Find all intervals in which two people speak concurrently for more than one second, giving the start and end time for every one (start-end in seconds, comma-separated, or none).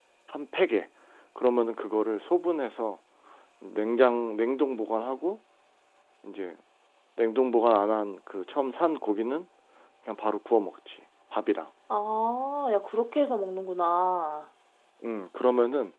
none